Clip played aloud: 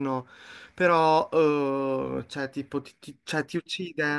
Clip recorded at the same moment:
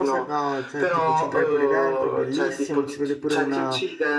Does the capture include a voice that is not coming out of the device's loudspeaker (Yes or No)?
Yes